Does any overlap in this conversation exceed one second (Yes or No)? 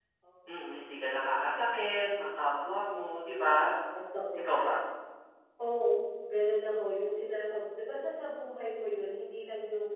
No